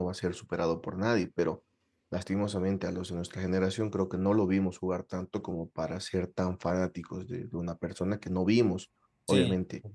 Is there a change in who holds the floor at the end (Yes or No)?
No